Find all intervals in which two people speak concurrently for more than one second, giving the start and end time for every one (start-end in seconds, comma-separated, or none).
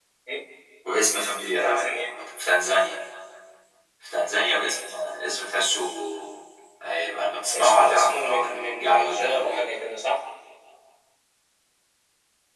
7.5-9.7